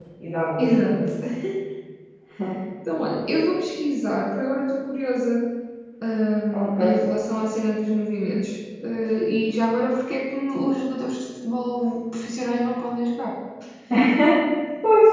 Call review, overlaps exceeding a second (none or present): none